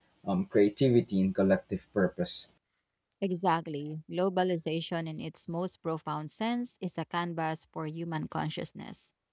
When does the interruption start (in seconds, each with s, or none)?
none